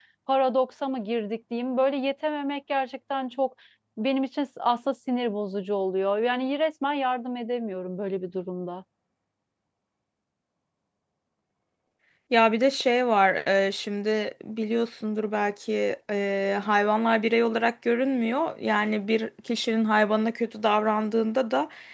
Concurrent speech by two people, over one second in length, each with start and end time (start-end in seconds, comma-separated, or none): none